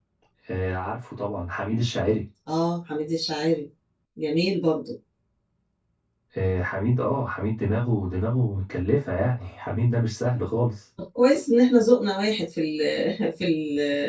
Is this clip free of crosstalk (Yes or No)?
Yes